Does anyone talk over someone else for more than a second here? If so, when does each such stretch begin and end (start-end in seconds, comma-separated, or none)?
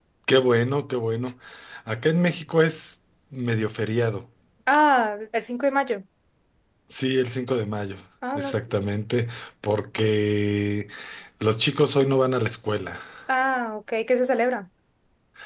none